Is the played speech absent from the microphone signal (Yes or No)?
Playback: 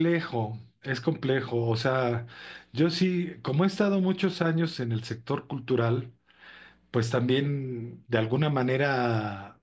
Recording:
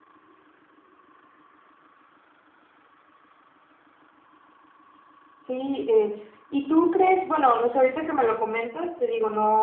Yes